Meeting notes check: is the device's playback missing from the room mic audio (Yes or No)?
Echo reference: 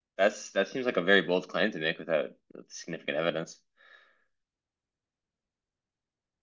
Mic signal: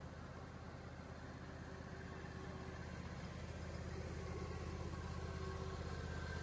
Yes